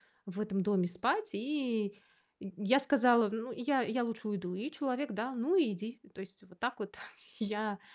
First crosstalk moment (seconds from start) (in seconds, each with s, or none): none